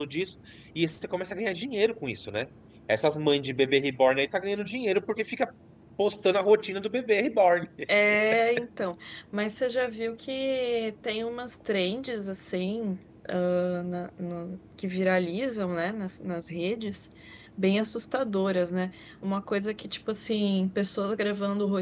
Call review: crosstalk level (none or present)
none